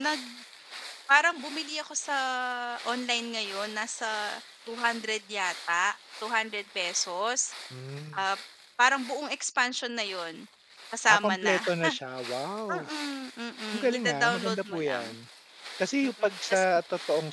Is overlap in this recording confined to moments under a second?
No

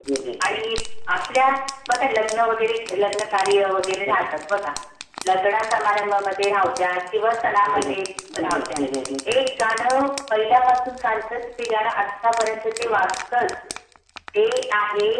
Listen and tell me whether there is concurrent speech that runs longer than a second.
No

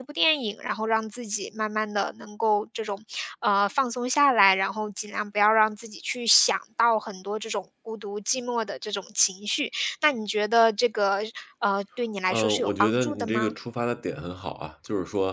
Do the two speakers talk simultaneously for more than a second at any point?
Yes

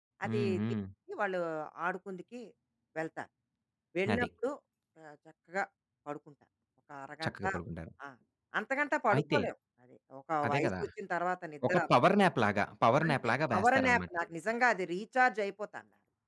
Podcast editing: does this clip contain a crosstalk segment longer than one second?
Yes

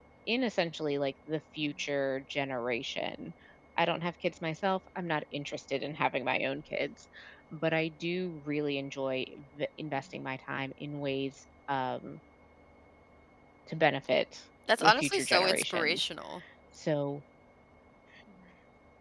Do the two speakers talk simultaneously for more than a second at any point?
Yes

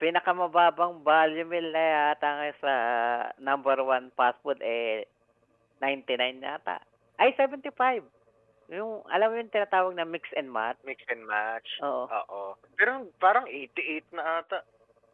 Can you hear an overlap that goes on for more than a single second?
No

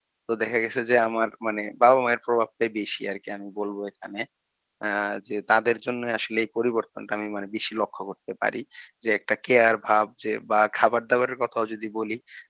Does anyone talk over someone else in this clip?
No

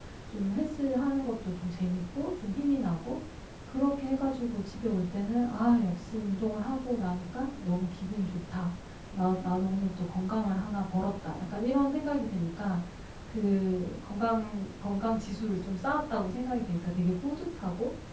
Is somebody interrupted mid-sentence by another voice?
No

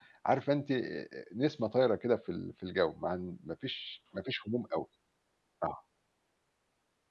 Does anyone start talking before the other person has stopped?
No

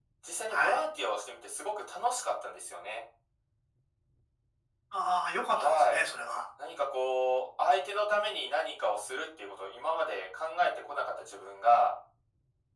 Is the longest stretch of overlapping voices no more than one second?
Yes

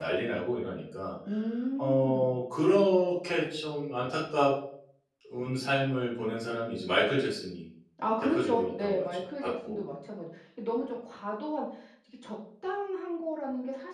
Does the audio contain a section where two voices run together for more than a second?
Yes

